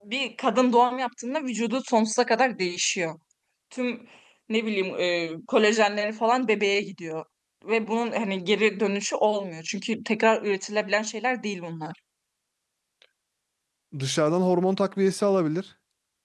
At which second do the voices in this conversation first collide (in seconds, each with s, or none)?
none